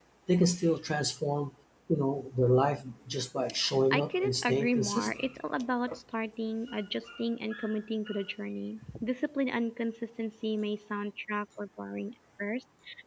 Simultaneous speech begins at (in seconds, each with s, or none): 3.9 s